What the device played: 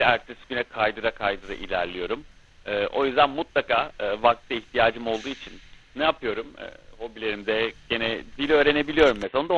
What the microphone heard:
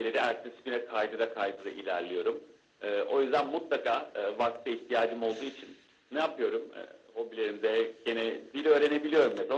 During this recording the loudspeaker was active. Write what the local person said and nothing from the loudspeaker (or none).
none